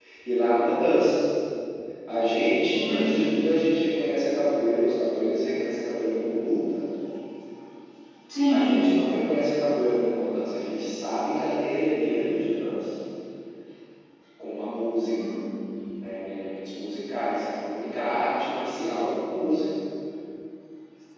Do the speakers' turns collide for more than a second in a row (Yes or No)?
No